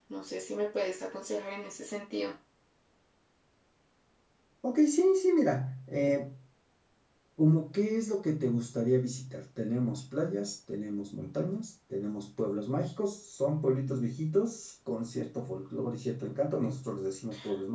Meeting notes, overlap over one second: none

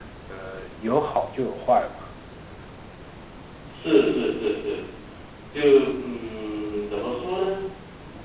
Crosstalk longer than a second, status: none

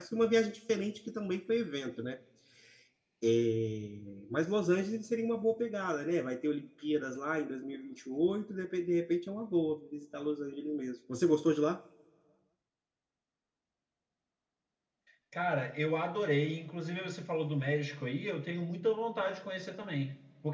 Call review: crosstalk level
none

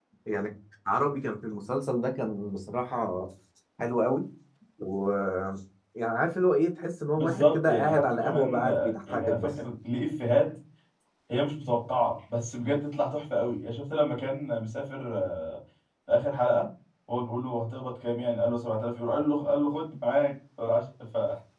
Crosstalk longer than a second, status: present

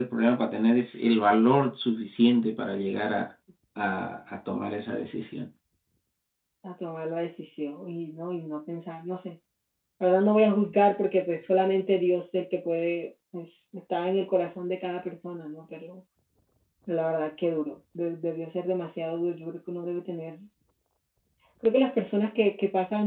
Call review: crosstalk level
none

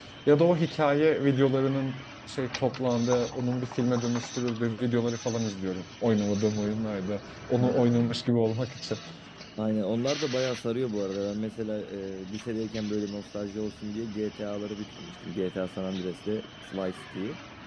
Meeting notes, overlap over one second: none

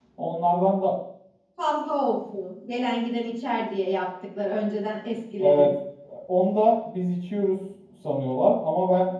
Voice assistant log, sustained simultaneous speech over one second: none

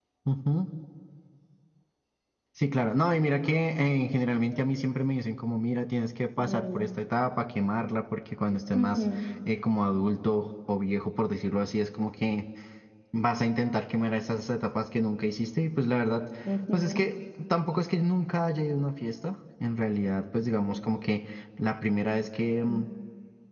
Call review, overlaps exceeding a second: none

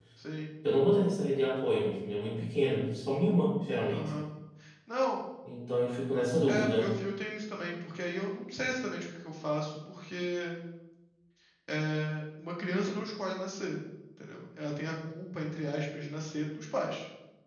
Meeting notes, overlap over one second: none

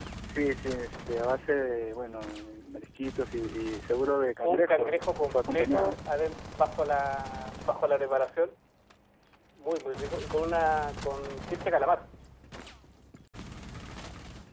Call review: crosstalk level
present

